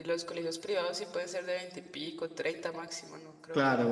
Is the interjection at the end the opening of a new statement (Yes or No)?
Yes